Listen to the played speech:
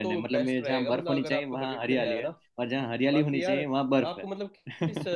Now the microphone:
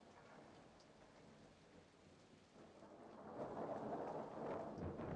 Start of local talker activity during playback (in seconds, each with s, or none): none